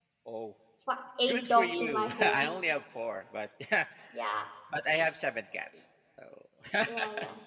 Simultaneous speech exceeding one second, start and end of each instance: 1.3-2.6

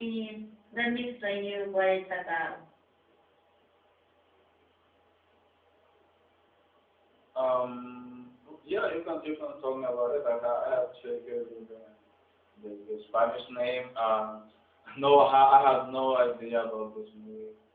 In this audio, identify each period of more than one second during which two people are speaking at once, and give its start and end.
none

